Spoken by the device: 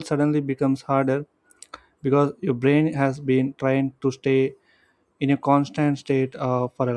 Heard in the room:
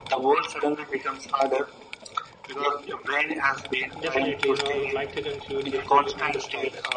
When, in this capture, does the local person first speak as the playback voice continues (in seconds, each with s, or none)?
4.0 s